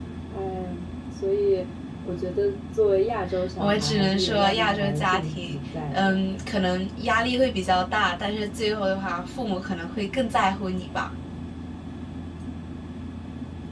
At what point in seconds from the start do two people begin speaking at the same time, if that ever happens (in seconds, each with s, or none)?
3.6 s